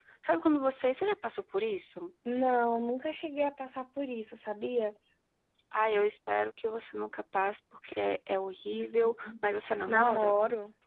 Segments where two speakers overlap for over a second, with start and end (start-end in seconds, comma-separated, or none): 8.7-10.4